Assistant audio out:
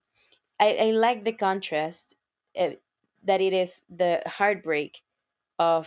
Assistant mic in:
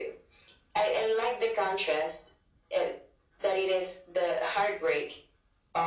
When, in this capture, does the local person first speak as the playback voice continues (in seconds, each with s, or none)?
none